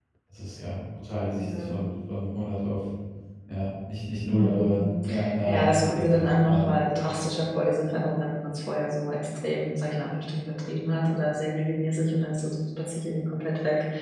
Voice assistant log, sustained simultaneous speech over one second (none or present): present